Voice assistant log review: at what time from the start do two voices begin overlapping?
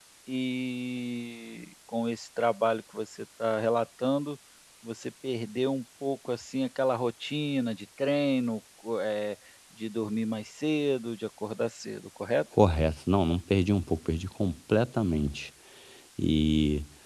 none

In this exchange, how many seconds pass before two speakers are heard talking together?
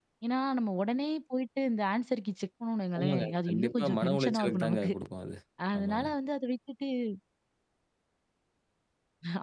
3.0 s

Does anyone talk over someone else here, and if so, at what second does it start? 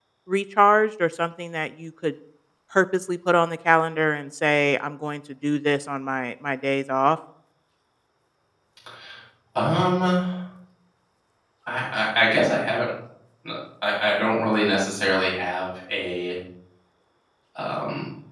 none

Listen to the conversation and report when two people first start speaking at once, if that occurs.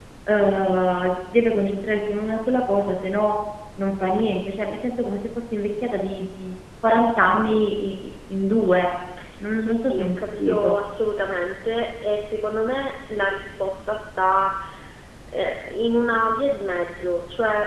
9.5 s

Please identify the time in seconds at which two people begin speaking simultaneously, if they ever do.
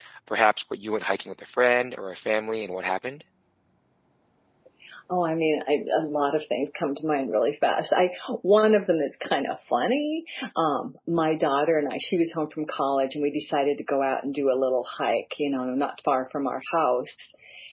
none

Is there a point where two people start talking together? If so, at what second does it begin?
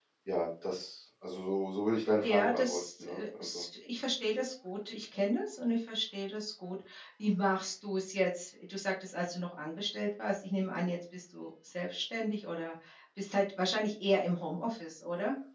2.2 s

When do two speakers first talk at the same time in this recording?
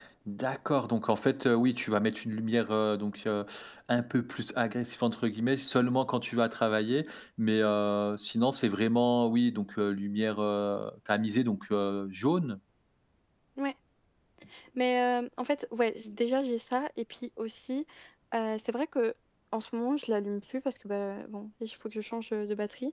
none

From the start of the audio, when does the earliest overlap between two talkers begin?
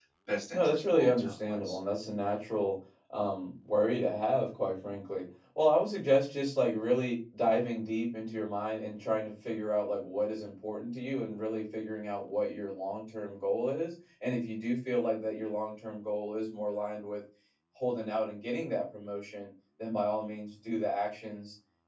0.5 s

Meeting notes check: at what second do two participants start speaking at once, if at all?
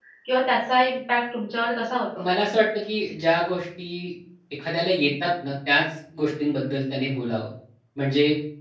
none

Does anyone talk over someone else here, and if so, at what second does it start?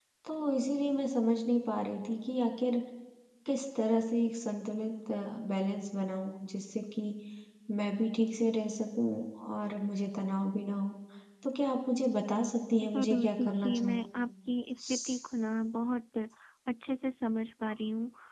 12.8 s

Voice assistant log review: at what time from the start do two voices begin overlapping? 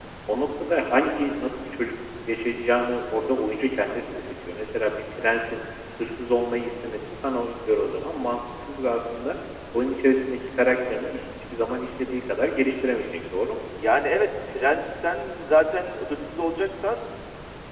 none

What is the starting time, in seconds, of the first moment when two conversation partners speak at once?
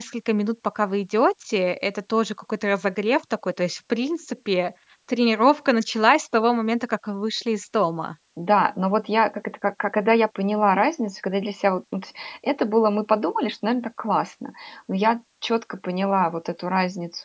none

